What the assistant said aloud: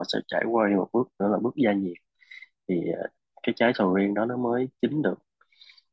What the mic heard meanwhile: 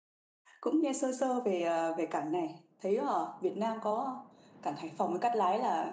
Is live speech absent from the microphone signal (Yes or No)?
No